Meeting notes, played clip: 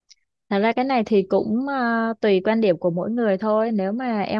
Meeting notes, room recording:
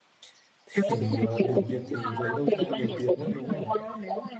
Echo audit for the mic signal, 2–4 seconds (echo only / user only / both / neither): both